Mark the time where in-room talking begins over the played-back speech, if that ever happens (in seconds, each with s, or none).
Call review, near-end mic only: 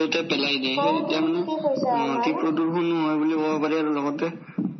0.8 s